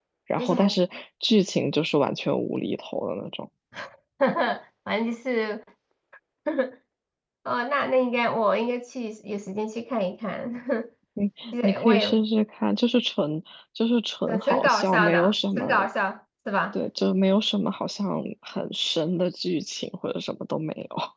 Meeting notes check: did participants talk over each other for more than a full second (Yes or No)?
Yes